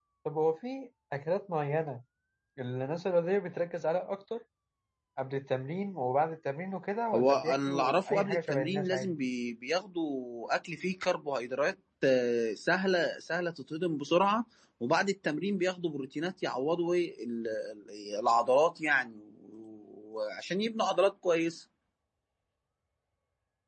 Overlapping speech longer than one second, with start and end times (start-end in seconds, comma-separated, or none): 7.2-9.1